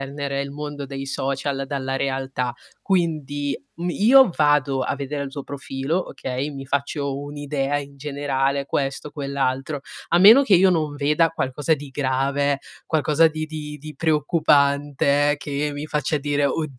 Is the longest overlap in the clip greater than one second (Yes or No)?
No